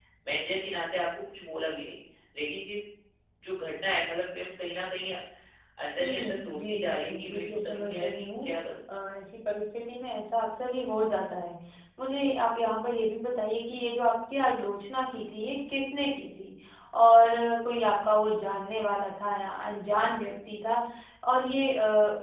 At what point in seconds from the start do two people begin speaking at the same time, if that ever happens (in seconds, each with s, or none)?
6.0 s